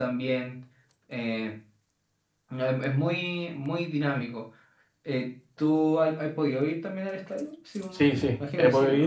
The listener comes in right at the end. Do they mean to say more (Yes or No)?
Yes